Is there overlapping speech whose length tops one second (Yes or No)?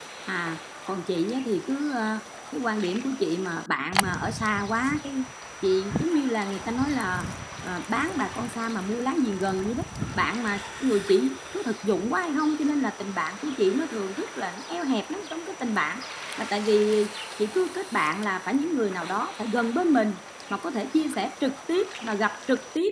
No